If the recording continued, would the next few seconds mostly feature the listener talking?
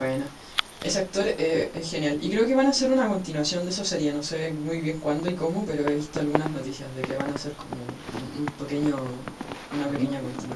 Yes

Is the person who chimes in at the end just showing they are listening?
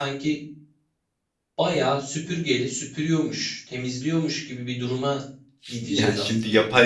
No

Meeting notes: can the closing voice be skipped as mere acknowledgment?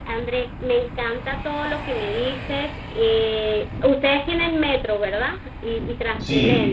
No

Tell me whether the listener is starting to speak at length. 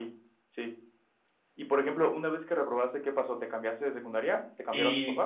Yes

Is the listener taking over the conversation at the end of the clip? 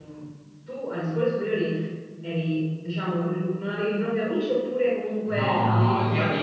Yes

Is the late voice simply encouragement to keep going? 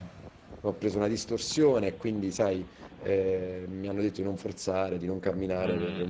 Yes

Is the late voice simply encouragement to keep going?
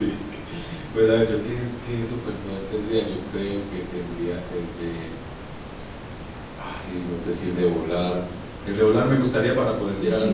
No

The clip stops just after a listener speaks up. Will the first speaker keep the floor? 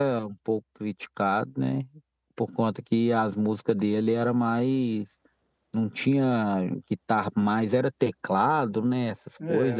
No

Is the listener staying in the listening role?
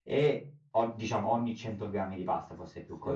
Yes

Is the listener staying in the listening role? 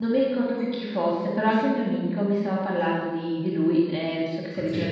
Yes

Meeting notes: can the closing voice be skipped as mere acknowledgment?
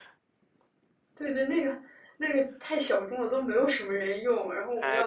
No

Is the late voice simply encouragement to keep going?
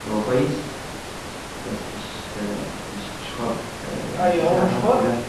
No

